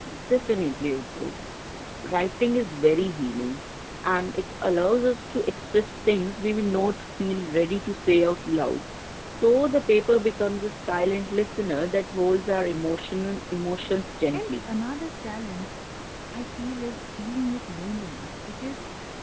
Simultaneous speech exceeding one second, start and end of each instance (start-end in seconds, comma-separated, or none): none